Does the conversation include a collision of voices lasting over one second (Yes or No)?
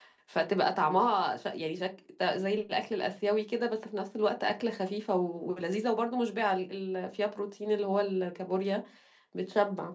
No